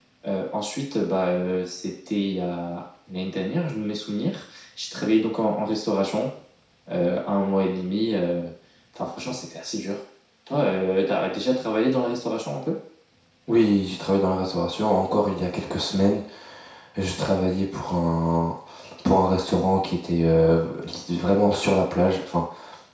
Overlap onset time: none

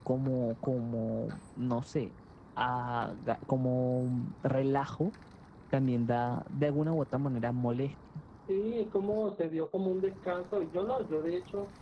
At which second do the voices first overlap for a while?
none

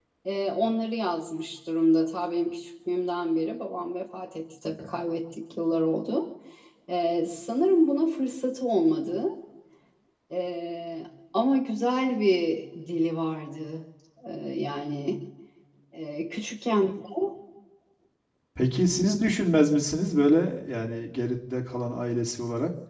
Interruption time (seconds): none

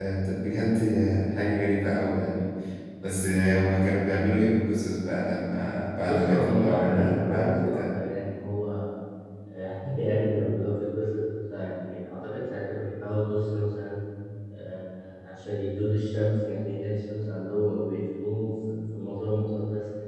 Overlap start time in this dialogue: 6.0 s

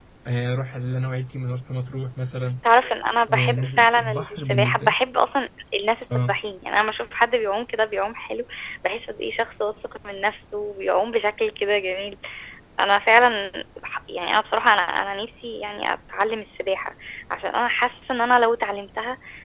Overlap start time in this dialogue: 3.3 s

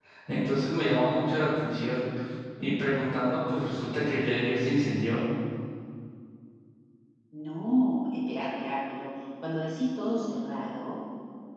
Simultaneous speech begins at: none

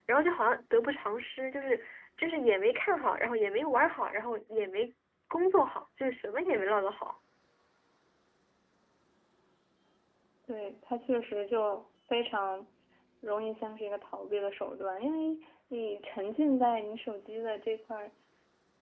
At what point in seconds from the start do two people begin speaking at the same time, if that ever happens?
none

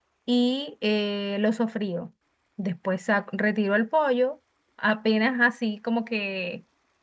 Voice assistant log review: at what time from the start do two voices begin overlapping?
none

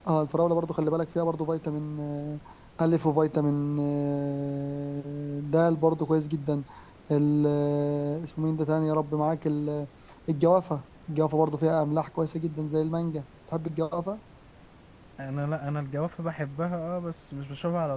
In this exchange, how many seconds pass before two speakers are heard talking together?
none

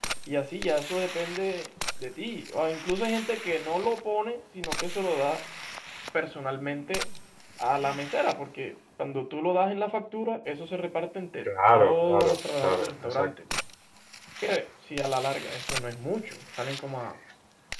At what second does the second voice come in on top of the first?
11.4 s

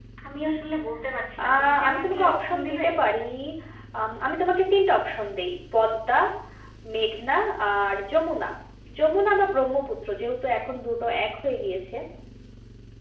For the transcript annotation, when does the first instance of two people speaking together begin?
1.4 s

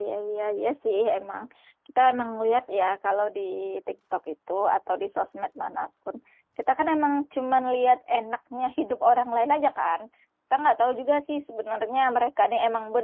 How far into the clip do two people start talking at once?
none

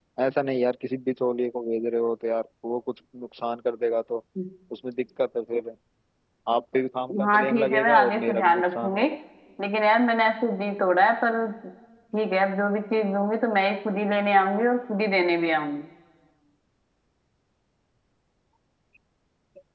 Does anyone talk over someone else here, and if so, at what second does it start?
7.2 s

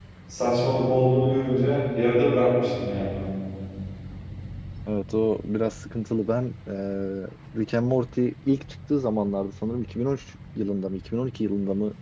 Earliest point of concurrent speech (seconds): none

